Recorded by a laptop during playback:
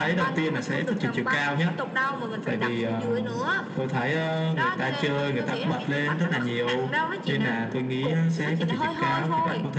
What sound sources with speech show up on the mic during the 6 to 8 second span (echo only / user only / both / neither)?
echo only